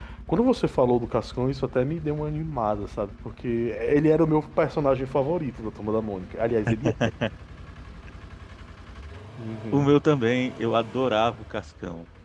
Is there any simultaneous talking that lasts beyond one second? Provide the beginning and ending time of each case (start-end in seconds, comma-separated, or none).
none